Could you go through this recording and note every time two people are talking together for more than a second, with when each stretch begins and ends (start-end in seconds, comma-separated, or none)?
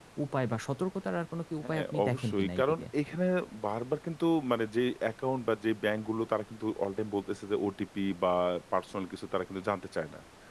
1.6-2.9